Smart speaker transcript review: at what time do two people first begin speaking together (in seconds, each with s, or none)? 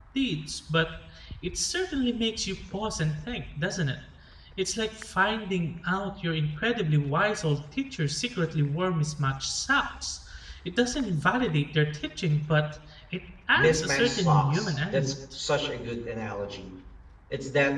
13.6 s